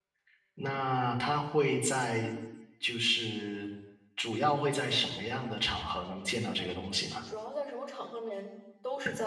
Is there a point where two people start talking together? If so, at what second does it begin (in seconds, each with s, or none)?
none